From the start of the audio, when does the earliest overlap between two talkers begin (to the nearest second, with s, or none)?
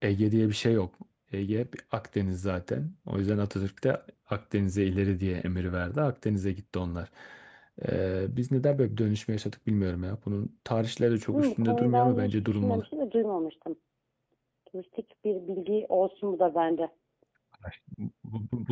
11 s